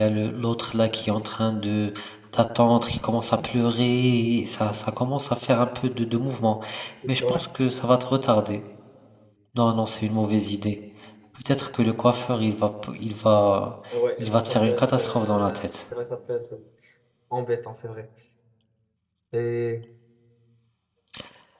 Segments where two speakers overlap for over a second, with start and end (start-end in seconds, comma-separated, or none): 14.2-15.6